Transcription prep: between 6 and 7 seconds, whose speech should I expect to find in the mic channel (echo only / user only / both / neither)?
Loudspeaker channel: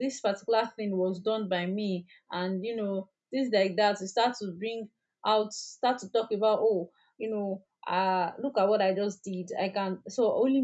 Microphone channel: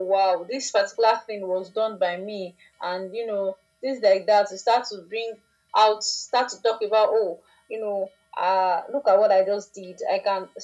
echo only